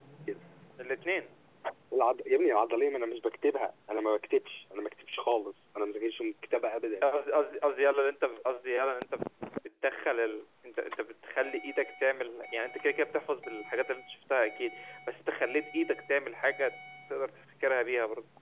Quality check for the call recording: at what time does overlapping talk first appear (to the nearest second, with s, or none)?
none